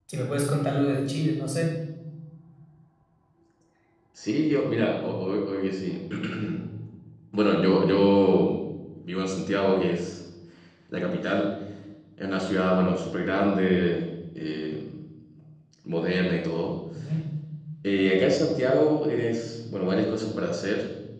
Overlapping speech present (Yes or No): No